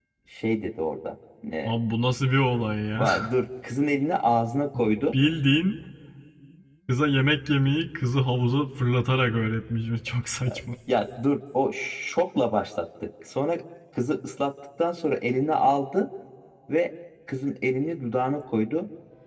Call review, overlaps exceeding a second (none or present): none